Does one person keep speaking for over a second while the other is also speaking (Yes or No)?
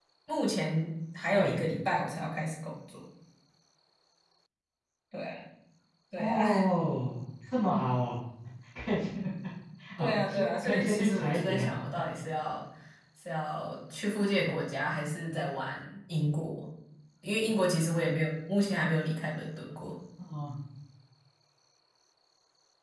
Yes